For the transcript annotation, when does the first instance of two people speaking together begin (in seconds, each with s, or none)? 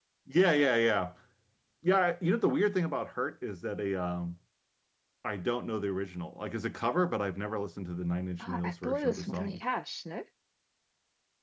8.4 s